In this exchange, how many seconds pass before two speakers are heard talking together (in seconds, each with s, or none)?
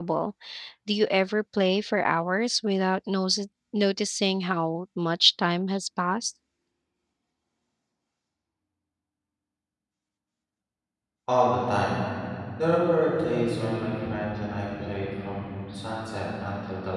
none